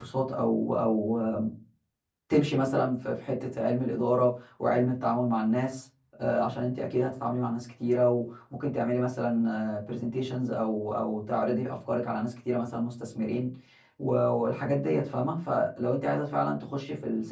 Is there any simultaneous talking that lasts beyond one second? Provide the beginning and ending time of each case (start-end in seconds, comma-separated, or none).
none